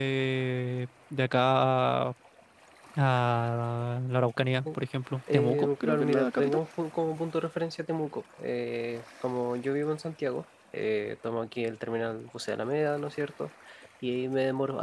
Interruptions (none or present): present